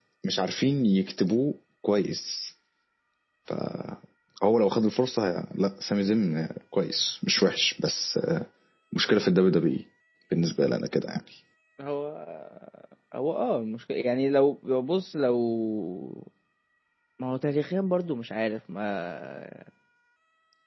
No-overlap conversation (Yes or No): Yes